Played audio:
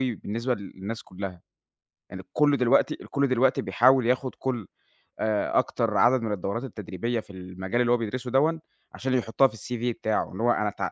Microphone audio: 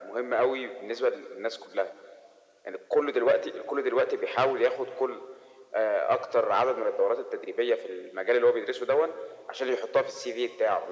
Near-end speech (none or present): none